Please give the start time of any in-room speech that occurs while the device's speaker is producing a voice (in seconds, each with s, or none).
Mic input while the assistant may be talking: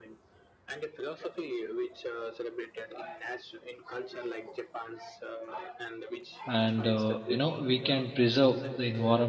6.5 s